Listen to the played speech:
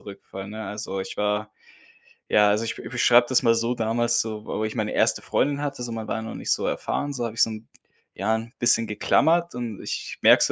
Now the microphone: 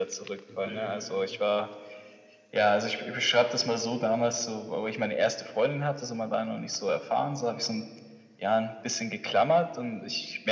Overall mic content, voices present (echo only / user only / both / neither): both